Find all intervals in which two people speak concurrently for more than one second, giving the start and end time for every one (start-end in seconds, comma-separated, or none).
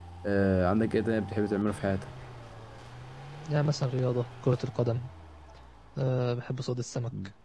none